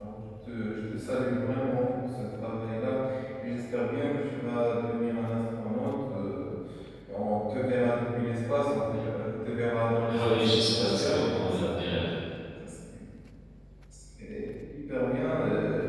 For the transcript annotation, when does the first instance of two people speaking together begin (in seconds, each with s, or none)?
10.1 s